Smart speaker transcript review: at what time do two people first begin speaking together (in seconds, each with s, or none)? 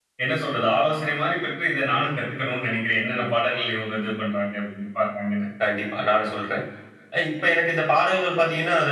none